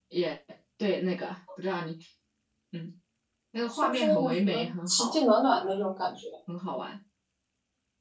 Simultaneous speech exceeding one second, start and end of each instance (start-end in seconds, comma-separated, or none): 3.7-5.2